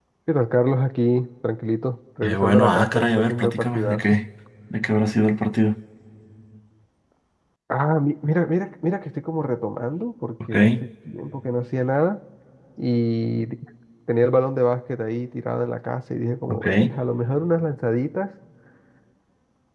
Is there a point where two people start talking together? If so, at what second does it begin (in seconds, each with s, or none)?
2.2 s